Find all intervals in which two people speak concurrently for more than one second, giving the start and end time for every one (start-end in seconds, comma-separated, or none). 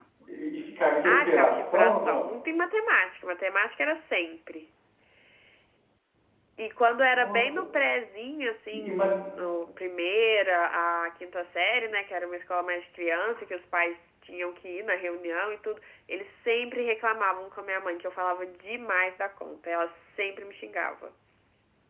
1.1-2.3